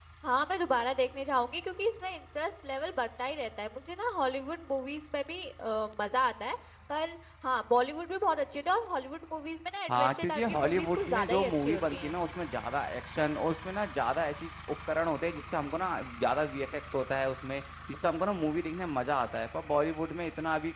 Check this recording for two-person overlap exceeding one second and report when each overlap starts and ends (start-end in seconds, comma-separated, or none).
9.9-12.1